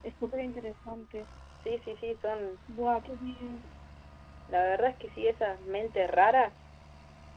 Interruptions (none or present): none